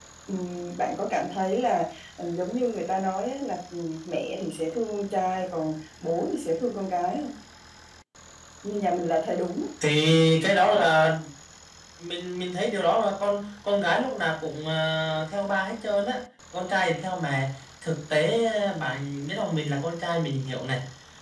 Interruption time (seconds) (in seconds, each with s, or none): none